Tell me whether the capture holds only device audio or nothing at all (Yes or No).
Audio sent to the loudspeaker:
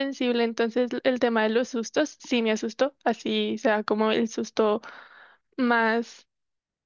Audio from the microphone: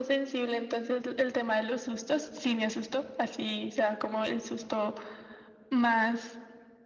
Yes